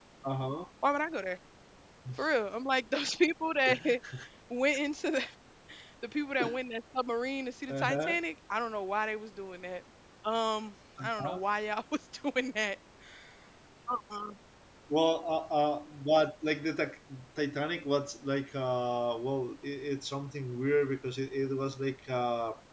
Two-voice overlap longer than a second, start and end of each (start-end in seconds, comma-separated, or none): none